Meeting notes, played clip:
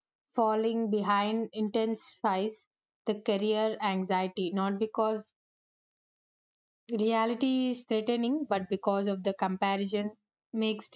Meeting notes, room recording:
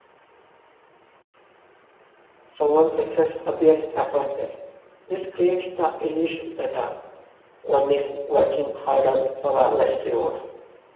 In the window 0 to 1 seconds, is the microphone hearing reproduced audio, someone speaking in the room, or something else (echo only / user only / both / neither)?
neither